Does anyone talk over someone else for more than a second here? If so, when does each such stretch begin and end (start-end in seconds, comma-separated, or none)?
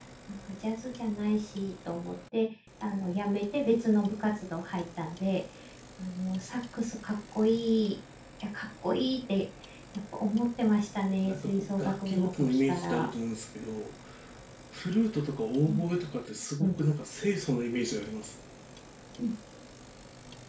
11.2-13.1